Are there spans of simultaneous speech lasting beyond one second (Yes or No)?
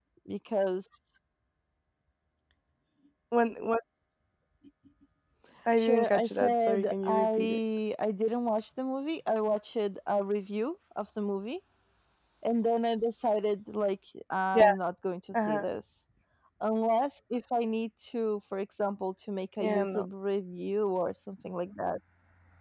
Yes